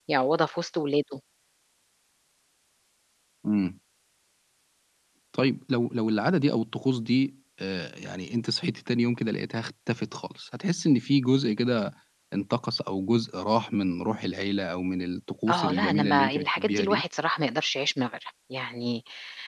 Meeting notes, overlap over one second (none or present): present